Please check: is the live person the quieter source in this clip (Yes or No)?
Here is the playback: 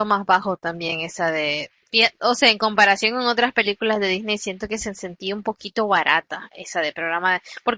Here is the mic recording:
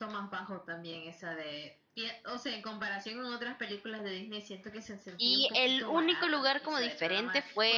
No